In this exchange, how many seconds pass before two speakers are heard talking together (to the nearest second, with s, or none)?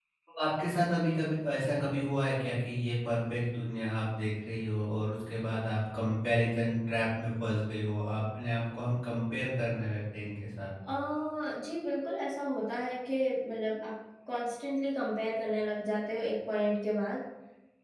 none